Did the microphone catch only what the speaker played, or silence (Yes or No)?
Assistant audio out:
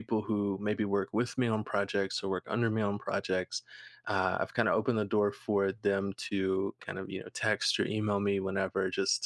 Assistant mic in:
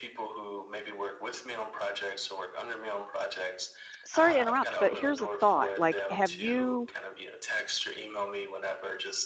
No